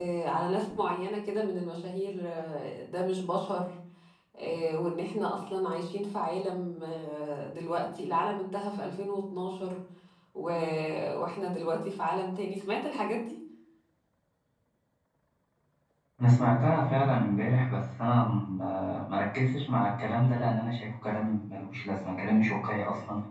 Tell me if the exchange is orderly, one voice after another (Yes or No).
Yes